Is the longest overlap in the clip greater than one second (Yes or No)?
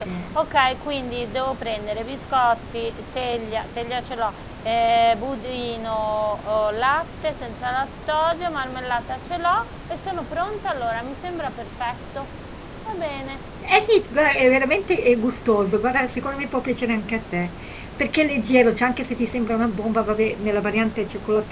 No